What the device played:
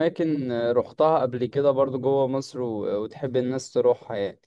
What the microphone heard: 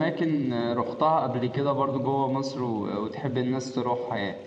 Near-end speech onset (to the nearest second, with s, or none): none